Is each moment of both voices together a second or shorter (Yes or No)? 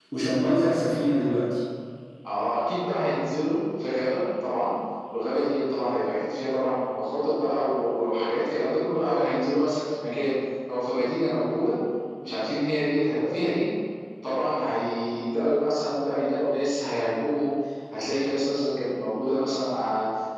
Yes